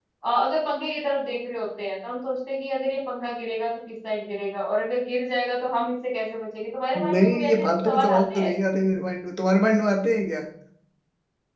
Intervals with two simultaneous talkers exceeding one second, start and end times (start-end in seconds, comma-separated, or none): 7.1-8.6